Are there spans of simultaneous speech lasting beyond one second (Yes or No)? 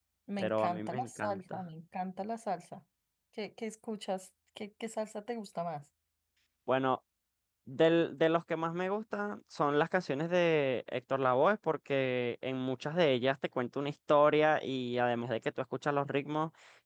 Yes